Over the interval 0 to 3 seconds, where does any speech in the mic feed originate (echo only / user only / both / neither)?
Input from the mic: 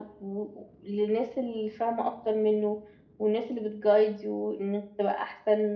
echo only